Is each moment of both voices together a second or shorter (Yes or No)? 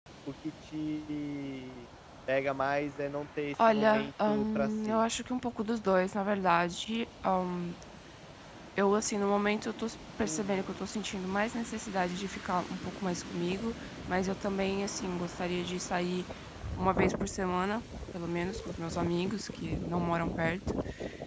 No